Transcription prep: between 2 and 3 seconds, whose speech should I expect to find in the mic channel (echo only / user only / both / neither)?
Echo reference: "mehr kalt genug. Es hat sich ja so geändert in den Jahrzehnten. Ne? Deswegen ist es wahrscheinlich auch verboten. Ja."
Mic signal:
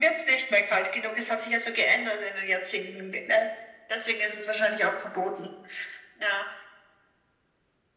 echo only